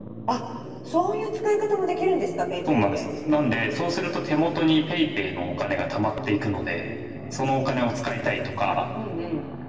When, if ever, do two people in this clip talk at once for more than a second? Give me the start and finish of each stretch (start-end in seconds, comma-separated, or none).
none